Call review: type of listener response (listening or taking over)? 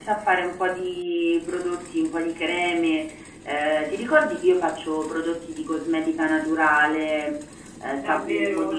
taking over